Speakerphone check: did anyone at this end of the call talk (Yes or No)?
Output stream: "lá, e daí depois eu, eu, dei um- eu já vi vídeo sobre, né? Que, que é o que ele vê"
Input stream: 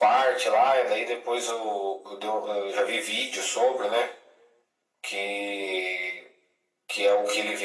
No